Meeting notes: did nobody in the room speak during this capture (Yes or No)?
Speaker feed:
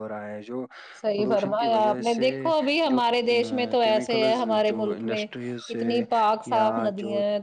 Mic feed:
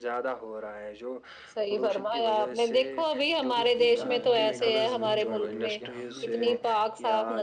No